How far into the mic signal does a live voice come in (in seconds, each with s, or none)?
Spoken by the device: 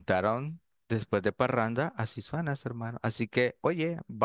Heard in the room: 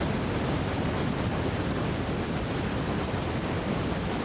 none